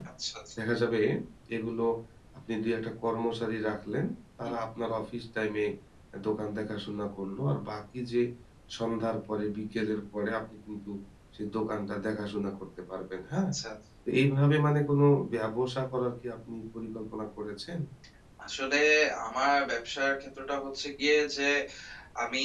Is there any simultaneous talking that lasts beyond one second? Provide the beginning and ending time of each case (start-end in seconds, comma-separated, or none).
none